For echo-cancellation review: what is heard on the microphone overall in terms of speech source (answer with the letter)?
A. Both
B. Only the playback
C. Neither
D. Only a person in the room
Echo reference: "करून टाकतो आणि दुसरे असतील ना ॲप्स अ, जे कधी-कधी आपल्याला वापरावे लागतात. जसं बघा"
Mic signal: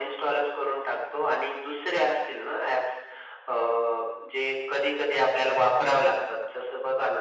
B